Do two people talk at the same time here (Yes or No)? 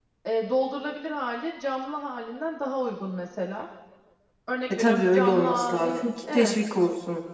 Yes